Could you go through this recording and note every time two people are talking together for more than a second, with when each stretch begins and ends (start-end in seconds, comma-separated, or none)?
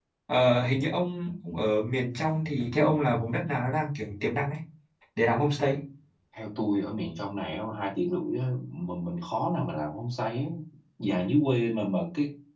none